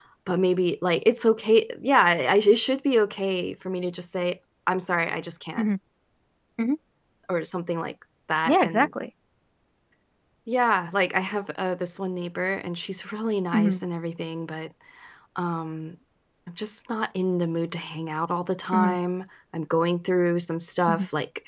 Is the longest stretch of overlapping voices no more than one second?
Yes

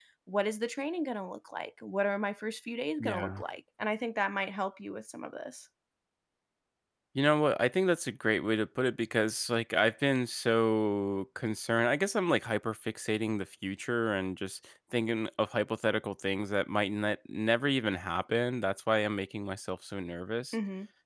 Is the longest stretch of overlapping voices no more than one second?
Yes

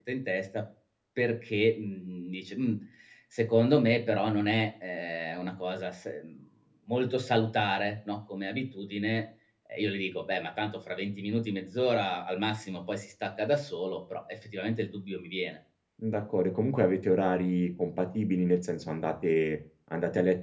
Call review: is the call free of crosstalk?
Yes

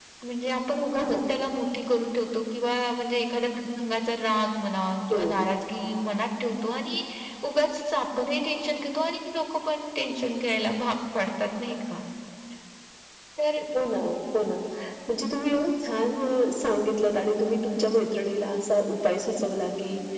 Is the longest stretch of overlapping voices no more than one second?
Yes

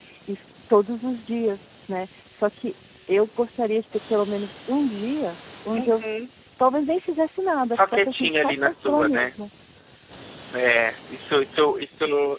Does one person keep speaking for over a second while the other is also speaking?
Yes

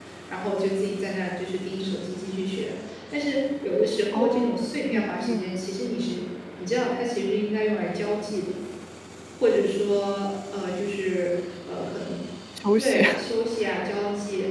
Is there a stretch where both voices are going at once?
Yes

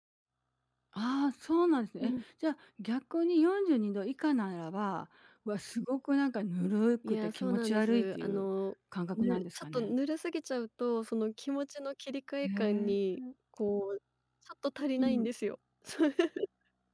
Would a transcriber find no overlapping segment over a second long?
No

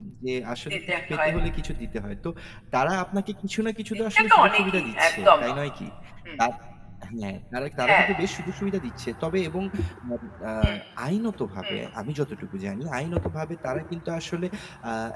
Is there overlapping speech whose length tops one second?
Yes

